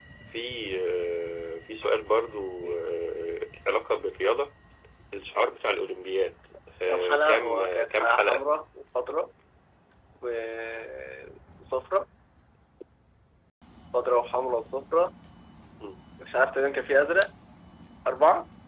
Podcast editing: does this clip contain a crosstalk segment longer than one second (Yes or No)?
Yes